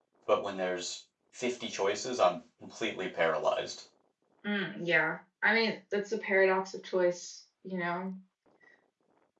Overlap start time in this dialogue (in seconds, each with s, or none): none